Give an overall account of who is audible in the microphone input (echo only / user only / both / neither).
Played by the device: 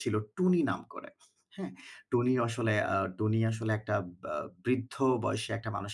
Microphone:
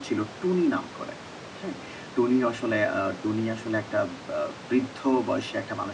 echo only